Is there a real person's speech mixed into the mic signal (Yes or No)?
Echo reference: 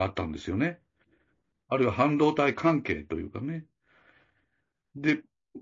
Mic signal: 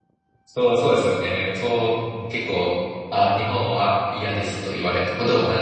Yes